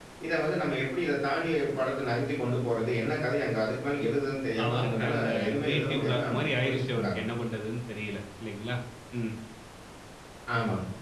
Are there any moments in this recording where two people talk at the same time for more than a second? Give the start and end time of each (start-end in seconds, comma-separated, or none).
4.6-6.2